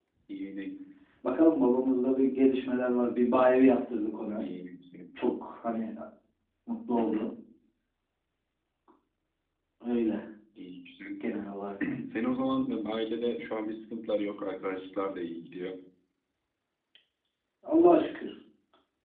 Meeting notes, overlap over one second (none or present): none